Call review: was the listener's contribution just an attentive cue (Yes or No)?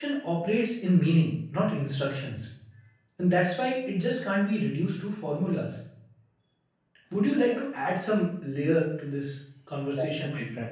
No